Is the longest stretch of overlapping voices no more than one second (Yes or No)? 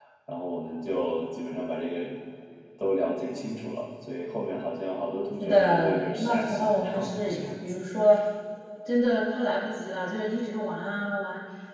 No